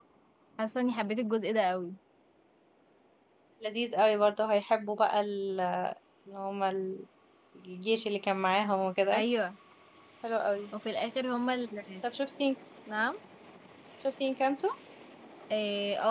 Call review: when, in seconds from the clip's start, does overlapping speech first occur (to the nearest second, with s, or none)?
none